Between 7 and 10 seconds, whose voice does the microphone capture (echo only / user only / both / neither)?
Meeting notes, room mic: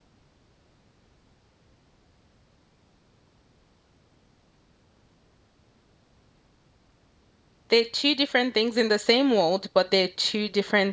user only